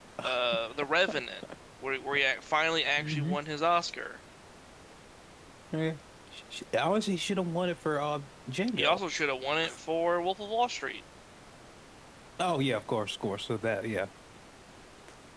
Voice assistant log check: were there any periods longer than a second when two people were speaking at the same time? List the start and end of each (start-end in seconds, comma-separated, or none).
none